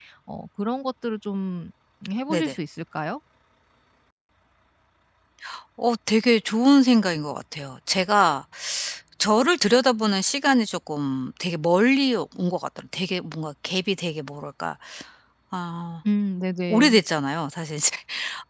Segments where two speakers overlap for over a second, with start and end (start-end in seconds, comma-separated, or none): none